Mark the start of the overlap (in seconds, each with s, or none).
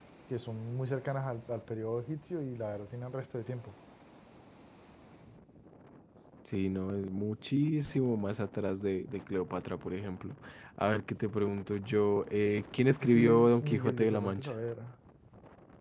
13.0 s